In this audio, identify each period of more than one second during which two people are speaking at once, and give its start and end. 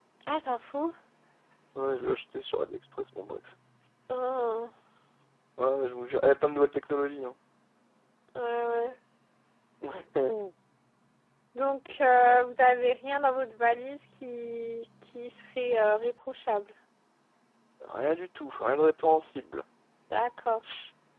none

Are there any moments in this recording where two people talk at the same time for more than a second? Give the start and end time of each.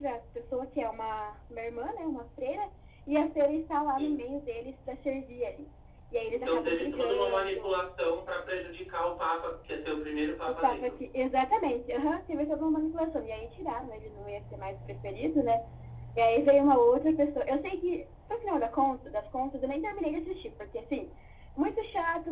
6.3-7.8

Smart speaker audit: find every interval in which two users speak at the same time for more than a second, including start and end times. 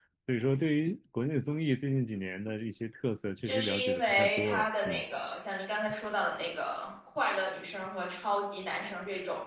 3.4-5.0

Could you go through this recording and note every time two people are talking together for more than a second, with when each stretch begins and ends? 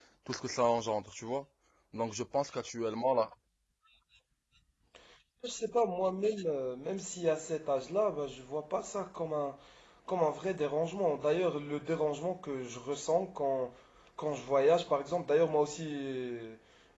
none

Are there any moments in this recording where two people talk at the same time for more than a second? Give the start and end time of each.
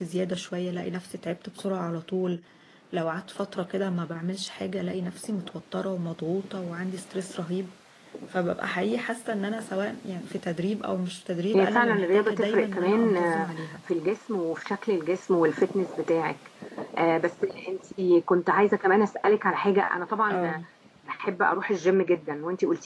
11.5-13.7

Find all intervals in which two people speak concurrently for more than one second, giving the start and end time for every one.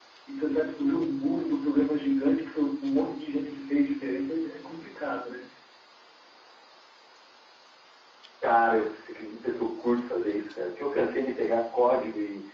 none

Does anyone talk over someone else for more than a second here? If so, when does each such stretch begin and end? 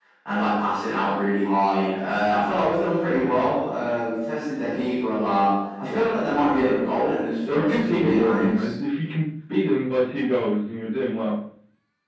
7.5-8.7

